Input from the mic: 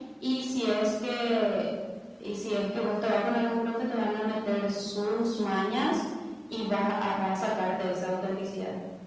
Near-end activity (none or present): none